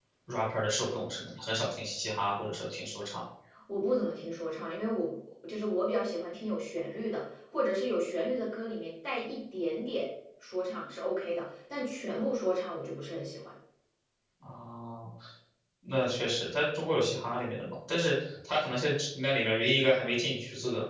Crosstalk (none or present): none